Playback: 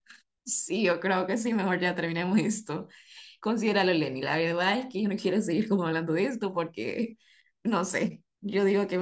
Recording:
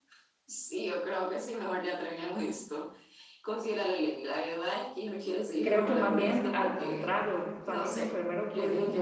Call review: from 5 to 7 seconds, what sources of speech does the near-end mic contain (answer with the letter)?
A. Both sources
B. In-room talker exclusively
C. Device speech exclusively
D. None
A